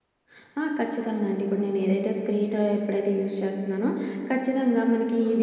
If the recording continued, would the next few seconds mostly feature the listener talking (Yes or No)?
No